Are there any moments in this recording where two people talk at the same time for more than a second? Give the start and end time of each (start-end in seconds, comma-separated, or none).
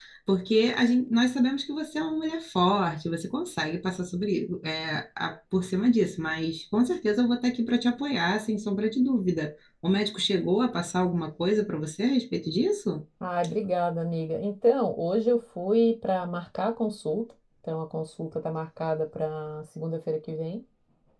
none